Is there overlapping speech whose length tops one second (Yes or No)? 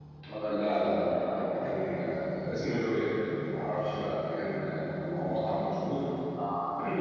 Yes